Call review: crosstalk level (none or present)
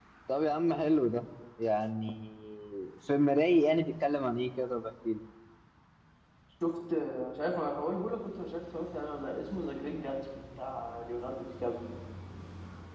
none